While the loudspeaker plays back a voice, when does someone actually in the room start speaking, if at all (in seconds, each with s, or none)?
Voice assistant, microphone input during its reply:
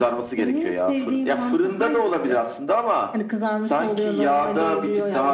none